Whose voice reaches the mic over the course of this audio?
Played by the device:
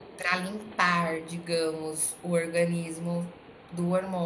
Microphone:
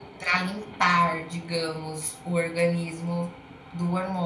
echo only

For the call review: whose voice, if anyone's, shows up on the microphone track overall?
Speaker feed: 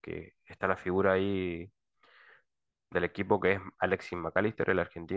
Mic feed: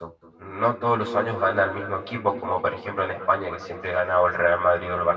user only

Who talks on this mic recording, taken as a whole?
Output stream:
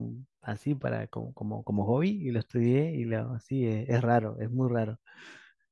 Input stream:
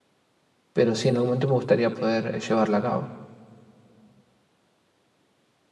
user only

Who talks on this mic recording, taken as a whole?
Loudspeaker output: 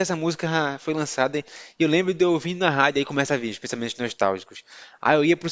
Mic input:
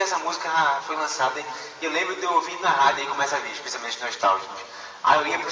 echo only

